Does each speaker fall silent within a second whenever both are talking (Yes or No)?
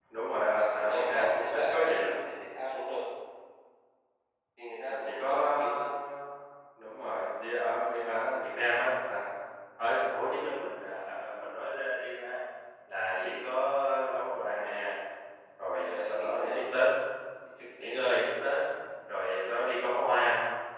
No